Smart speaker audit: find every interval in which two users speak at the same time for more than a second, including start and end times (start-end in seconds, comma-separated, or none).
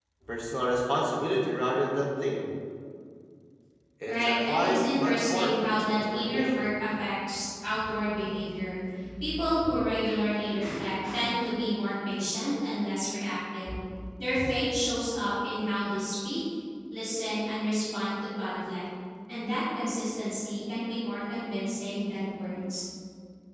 4.1-6.7